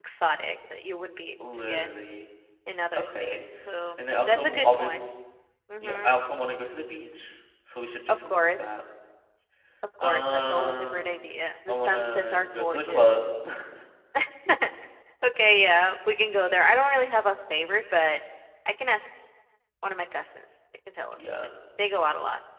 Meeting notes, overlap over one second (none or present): present